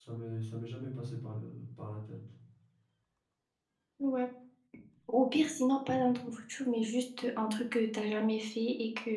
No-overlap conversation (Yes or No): Yes